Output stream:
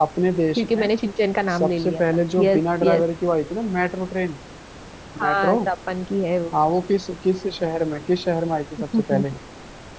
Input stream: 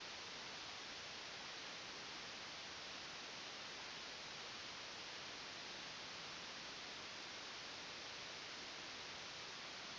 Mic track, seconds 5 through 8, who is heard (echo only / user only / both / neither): neither